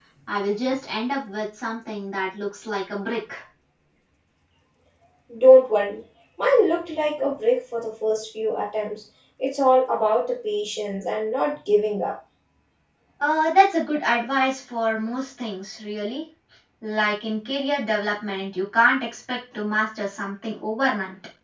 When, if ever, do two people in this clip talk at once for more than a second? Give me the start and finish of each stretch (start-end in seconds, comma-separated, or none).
none